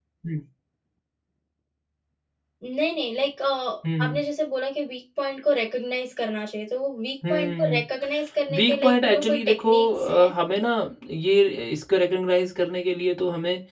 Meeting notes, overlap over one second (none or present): present